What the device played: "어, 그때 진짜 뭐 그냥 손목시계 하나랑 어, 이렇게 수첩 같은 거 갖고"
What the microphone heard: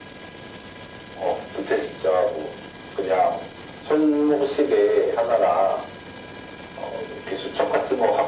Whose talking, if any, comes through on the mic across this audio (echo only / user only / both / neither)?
echo only